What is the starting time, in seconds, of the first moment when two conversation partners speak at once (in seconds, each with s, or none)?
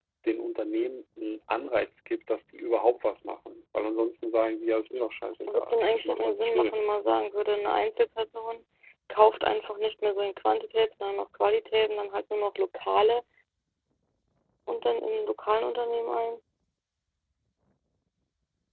5.5 s